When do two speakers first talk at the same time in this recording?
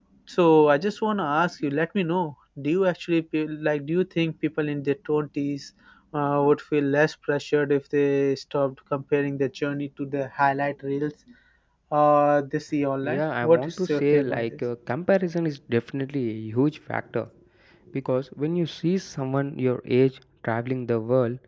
13.0 s

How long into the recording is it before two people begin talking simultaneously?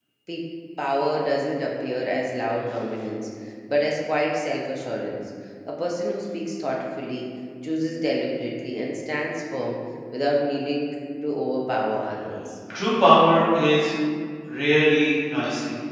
none

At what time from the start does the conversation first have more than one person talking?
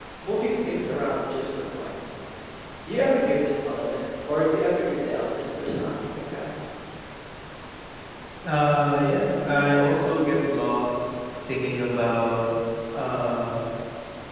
none

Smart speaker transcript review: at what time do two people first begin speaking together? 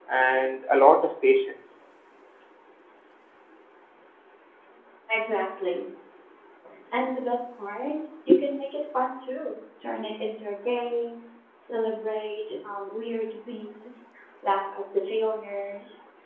none

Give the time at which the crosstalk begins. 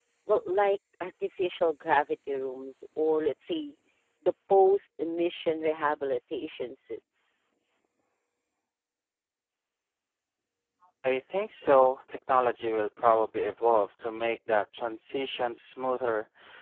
none

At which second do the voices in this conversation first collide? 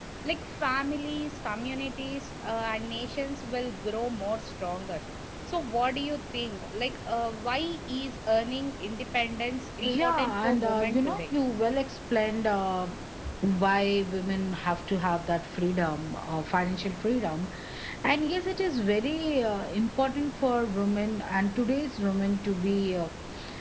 9.8 s

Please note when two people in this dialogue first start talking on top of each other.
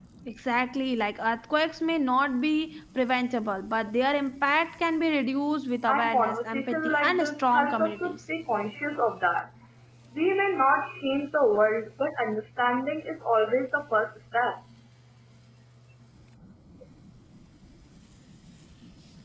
5.9 s

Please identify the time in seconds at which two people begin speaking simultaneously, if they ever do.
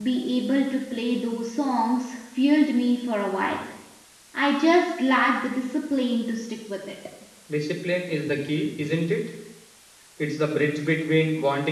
none

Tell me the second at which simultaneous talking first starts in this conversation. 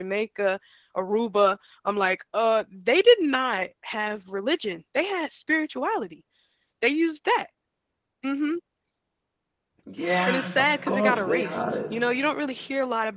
10.3 s

